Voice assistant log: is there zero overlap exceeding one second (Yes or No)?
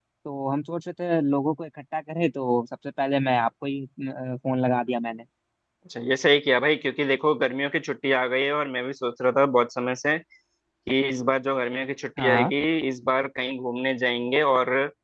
Yes